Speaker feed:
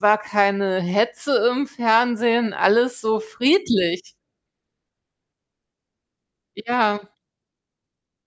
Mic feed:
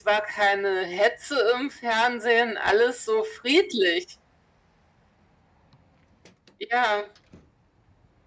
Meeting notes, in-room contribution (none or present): none